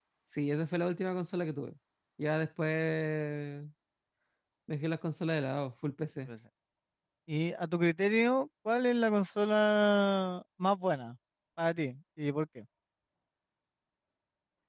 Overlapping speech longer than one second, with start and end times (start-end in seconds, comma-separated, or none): none